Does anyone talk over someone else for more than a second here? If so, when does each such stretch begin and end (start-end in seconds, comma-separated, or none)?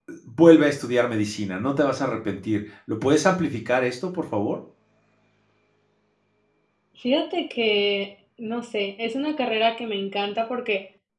none